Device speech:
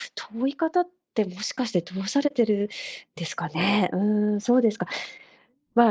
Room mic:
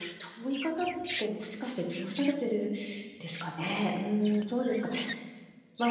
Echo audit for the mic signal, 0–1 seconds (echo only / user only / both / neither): echo only